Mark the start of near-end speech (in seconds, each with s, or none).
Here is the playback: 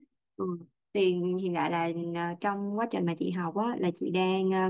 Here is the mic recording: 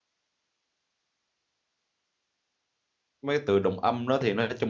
3.2 s